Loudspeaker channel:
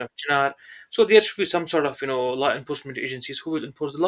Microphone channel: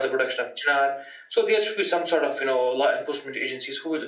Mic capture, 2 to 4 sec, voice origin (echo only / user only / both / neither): echo only